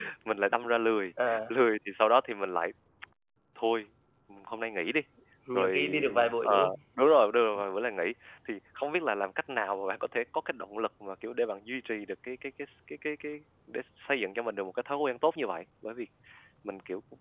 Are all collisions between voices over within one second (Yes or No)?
No